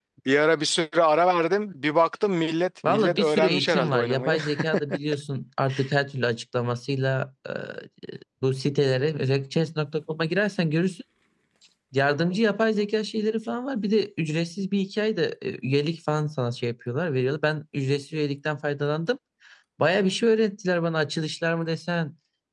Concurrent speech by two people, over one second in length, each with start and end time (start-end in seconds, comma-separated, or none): 2.8-4.4